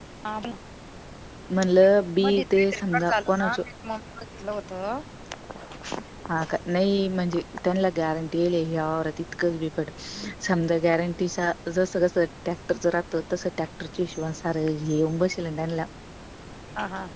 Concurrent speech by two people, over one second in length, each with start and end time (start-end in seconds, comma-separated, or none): 2.2-3.5